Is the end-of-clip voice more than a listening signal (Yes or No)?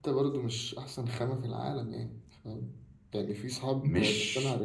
No